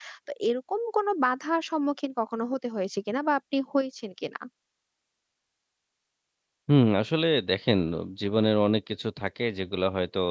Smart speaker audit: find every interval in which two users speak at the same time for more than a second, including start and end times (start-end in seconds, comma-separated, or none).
none